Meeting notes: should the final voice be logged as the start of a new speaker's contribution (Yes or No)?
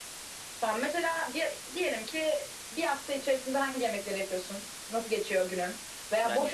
No